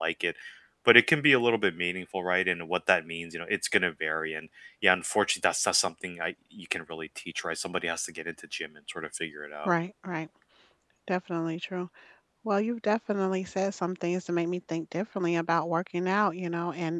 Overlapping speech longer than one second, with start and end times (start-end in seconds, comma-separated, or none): none